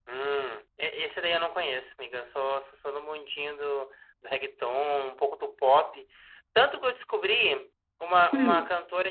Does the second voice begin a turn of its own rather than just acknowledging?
No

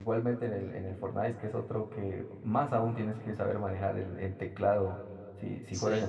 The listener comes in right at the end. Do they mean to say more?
No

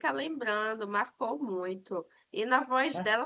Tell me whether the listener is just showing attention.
Yes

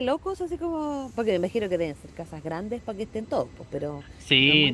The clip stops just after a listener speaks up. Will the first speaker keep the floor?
No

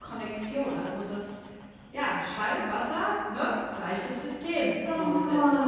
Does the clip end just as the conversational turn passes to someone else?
Yes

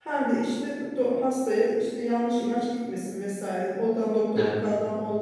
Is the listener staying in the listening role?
Yes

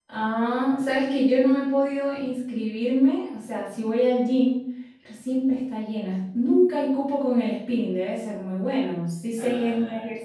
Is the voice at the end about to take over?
No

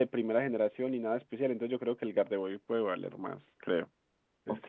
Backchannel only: No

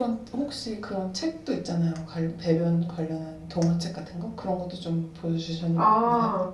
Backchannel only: No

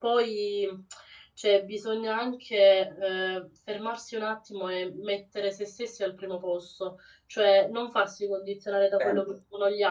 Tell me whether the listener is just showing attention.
Yes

